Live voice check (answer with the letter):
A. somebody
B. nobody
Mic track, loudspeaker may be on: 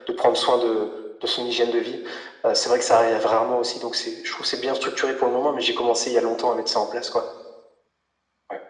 B